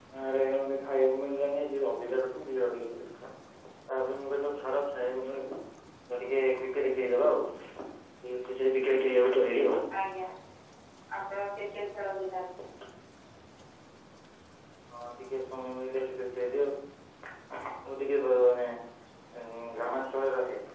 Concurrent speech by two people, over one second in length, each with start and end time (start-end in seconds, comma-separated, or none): none